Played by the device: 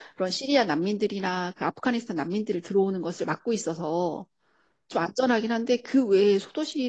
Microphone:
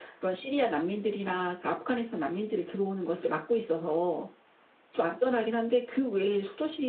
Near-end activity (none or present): none